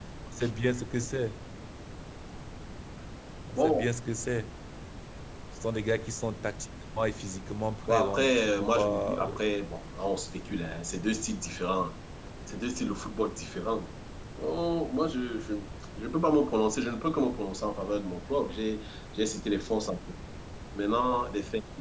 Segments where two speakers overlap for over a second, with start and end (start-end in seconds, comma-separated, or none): 7.9-9.4